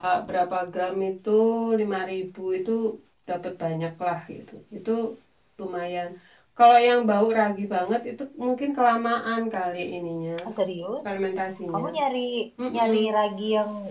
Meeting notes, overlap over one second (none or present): none